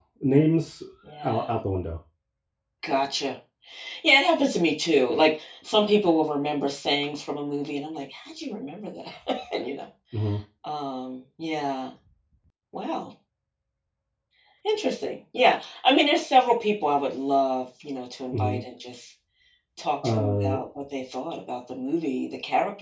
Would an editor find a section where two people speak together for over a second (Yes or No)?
No